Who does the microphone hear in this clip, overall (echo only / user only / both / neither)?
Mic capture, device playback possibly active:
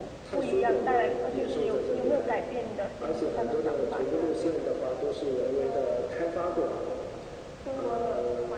both